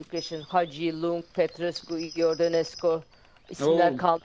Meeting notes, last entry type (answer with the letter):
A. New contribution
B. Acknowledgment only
B